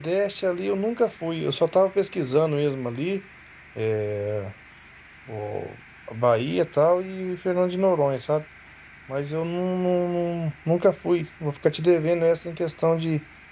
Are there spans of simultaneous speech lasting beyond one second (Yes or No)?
No